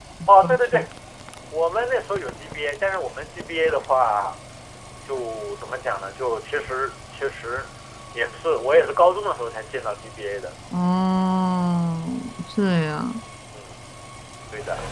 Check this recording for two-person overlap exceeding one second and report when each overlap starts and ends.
none

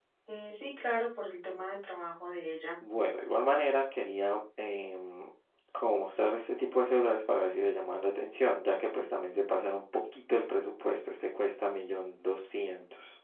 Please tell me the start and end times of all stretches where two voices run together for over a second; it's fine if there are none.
none

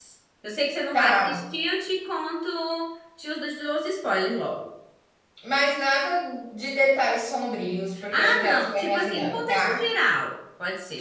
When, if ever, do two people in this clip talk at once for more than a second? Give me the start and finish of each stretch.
8.1-9.8

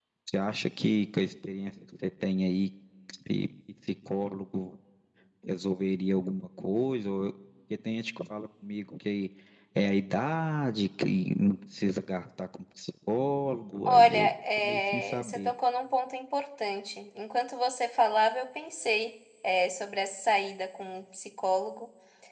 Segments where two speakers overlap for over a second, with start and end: 13.8-15.5

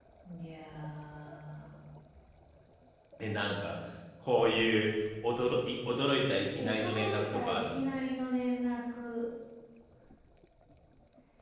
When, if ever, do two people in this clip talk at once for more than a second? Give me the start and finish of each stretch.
6.5-7.8

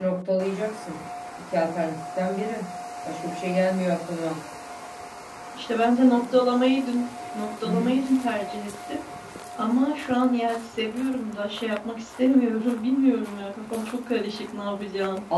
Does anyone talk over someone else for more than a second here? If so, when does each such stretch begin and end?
none

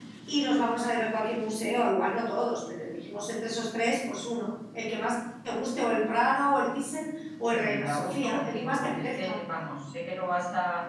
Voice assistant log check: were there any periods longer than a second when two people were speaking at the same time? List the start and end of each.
7.4-9.4

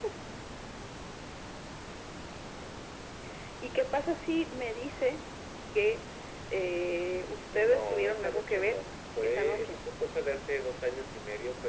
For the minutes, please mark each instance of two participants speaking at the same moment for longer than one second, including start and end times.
7.5-8.8

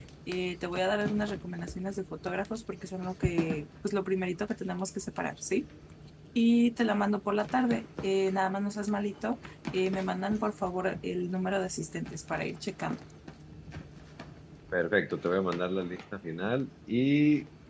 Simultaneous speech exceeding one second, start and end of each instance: none

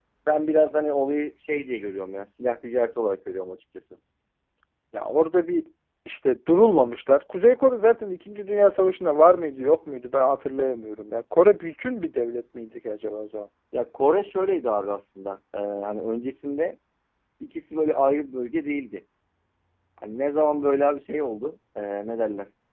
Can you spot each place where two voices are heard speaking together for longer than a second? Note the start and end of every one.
none

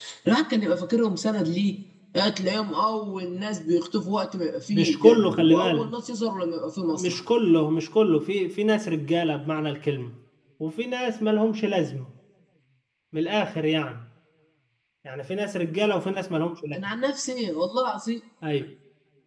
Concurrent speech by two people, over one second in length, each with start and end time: 4.7-5.9

